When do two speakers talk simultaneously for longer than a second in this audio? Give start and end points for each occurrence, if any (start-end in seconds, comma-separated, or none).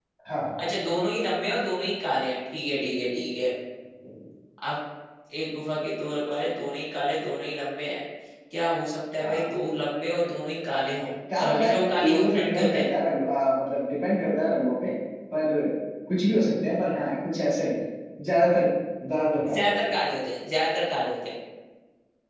11.4-12.8